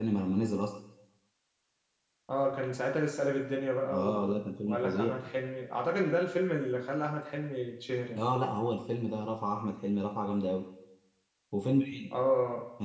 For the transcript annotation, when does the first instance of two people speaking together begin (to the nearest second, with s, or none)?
4 s